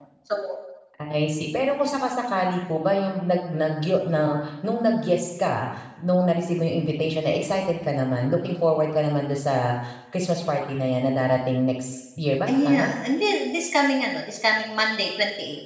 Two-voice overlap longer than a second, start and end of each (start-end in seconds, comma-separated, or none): none